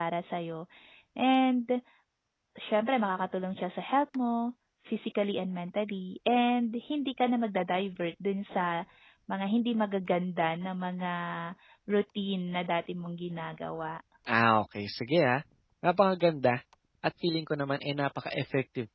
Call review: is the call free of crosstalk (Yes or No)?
Yes